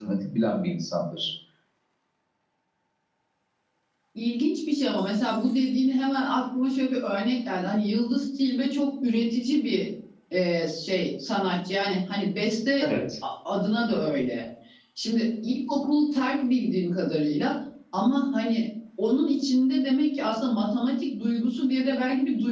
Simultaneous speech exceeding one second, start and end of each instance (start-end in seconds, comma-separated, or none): none